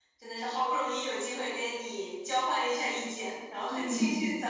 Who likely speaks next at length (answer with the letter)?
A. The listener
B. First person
B